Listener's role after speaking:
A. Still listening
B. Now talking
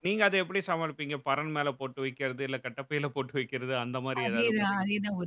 B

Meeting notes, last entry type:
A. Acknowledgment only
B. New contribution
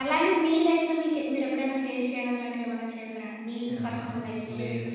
B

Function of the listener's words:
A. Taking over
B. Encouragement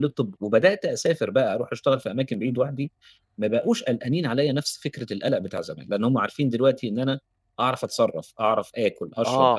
A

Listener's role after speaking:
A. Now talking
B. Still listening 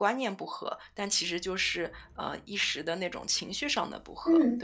A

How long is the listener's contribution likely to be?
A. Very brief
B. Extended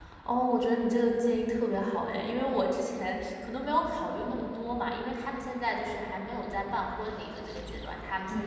A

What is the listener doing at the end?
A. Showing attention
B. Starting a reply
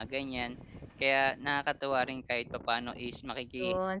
B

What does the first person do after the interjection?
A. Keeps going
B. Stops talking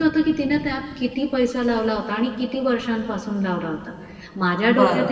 A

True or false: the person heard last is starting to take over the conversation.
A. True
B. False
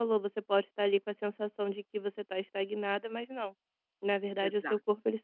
B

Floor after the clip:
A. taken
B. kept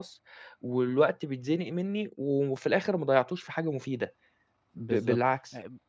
A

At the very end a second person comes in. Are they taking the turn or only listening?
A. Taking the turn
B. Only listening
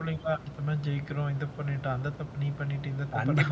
A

